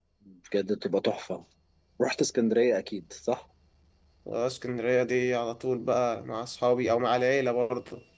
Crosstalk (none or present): none